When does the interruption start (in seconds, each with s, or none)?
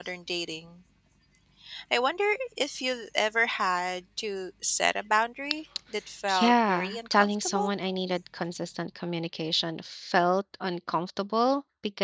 6.3 s